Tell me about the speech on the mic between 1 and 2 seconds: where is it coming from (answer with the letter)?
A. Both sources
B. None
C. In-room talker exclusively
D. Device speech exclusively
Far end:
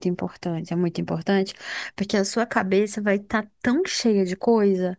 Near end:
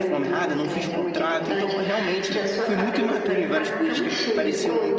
A